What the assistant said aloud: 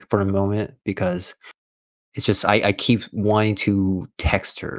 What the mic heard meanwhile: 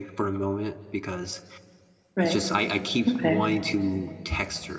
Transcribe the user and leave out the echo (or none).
Right. Okay.